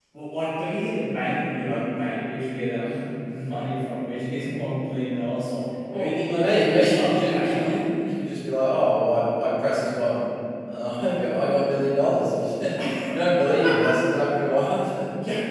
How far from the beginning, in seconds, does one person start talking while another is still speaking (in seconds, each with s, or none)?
5.9 s